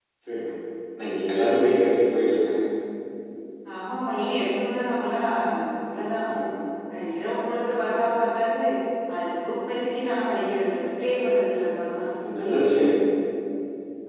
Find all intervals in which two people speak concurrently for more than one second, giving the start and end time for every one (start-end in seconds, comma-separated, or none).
none